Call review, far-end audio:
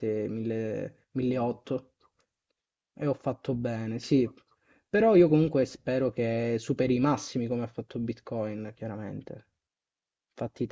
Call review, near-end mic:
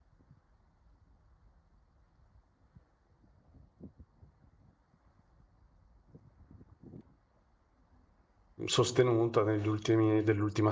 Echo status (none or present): none